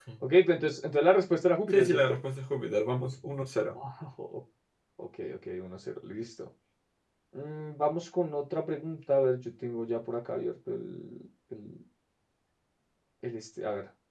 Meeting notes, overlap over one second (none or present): none